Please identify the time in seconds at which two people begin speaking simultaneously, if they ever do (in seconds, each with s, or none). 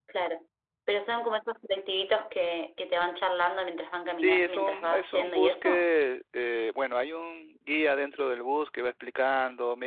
4.1 s